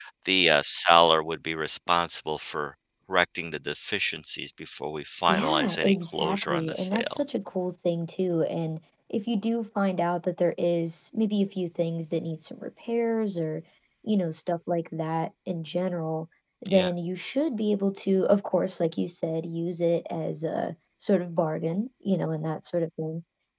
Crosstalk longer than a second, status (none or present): present